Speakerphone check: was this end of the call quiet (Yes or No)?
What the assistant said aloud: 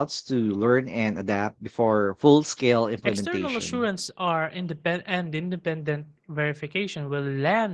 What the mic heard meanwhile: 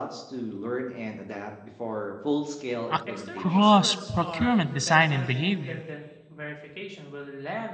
No